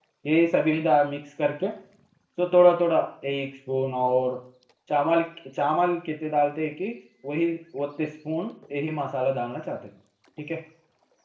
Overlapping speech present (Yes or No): No